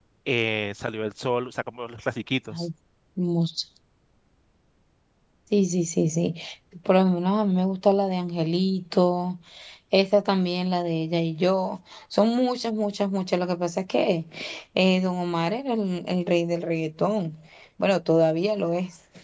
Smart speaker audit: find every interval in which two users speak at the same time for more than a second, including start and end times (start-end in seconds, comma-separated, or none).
none